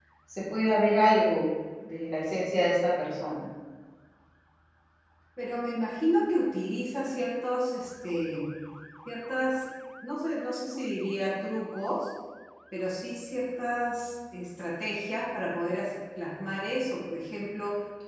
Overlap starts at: none

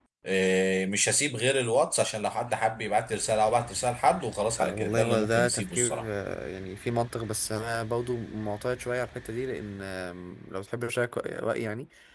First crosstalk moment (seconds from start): 5 s

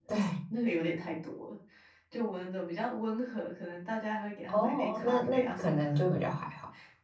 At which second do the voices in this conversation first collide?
4 s

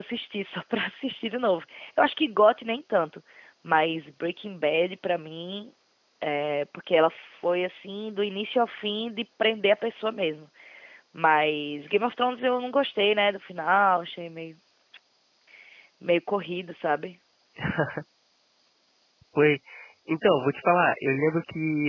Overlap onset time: none

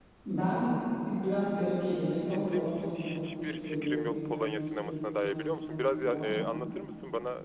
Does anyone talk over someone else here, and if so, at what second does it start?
2 s

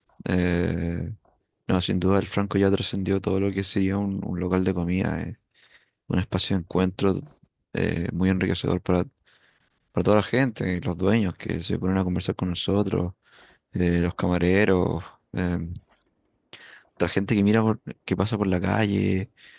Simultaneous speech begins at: none

